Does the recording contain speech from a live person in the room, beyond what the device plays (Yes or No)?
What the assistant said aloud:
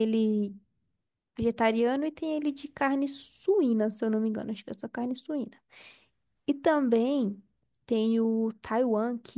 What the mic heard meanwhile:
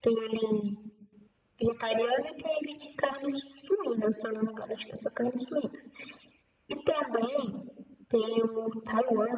No